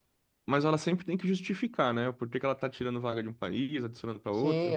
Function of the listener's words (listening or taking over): taking over